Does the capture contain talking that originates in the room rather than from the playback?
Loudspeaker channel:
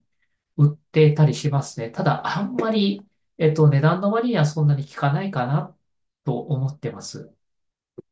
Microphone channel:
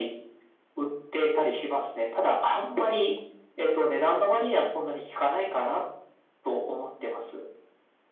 No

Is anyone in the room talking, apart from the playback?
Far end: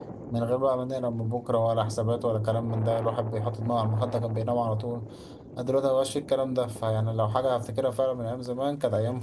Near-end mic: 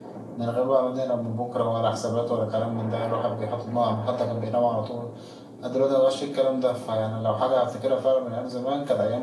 No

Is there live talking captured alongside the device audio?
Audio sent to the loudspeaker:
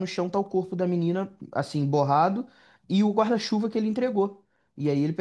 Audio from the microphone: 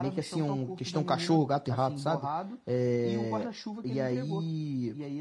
Yes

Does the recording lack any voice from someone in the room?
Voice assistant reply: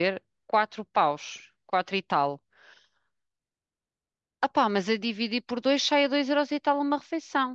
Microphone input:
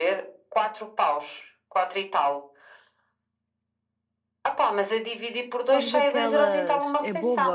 No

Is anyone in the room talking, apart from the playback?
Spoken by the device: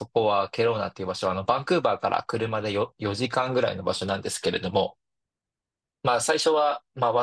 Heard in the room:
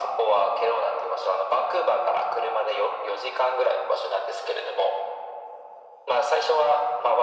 No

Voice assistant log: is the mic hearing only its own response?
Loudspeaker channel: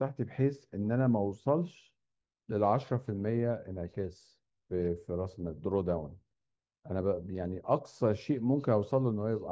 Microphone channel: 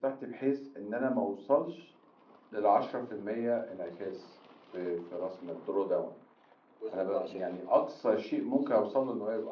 No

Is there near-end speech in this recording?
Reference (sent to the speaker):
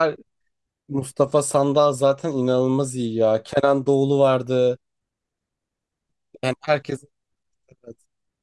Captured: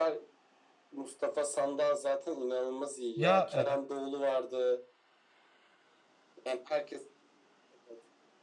Yes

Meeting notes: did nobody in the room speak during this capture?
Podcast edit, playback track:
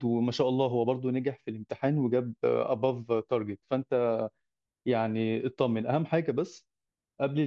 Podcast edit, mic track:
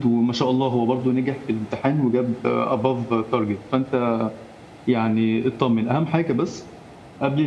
Yes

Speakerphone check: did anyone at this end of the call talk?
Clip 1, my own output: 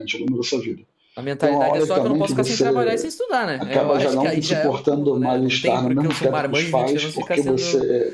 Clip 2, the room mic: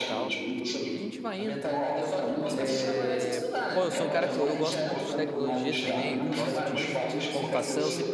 Yes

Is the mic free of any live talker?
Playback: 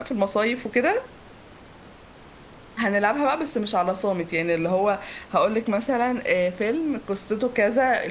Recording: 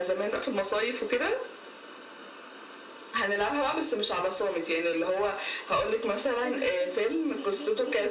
No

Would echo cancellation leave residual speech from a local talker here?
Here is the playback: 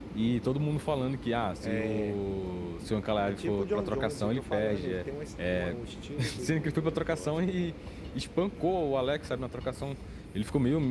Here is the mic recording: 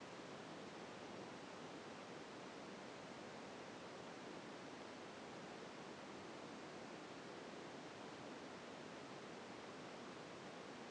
No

